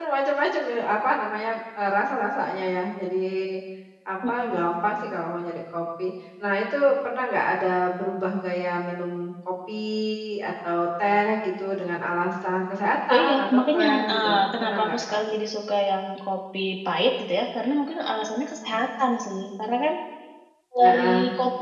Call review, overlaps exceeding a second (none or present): present